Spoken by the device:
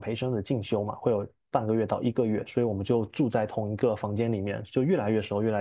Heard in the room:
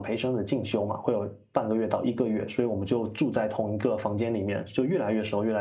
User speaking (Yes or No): No